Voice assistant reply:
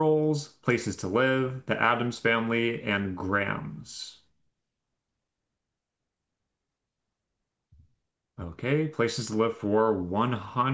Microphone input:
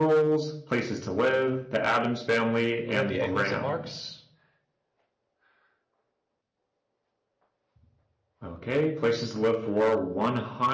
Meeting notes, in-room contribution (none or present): present